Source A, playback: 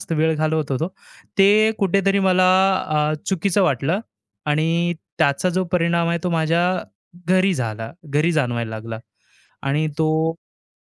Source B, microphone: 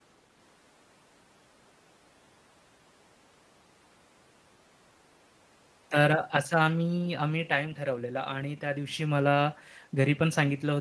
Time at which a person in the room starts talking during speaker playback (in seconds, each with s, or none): 5.9 s